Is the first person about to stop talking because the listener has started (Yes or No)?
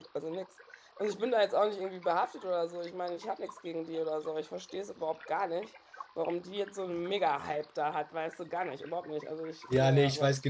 Yes